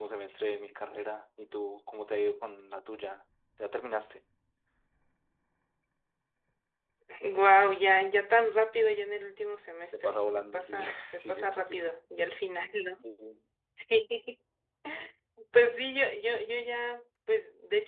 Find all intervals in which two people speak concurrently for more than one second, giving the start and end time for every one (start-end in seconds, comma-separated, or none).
9.9-11.9